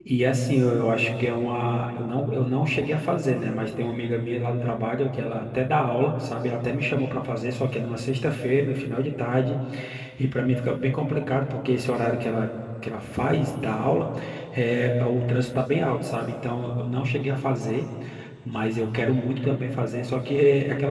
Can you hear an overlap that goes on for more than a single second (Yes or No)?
No